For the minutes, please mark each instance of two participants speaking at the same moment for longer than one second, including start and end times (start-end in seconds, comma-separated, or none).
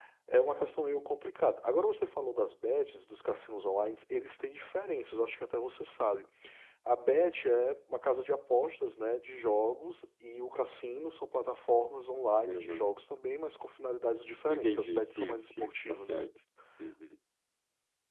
14.5-16.2